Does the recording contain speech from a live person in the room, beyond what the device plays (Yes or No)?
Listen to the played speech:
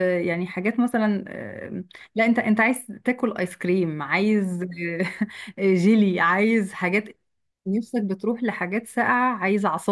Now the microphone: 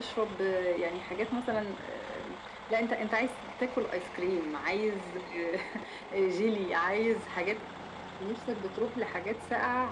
No